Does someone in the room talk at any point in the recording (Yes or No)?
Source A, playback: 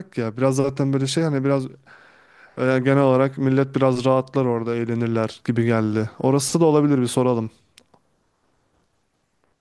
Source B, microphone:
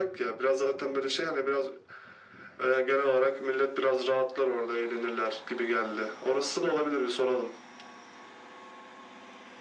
No